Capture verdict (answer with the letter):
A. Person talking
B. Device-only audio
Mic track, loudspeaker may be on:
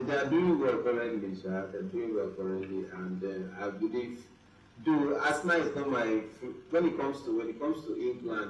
B